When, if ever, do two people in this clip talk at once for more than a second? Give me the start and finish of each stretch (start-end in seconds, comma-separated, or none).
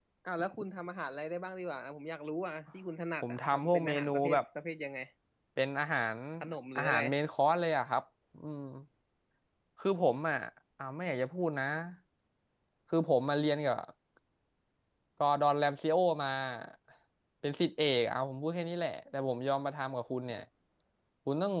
3.2-4.4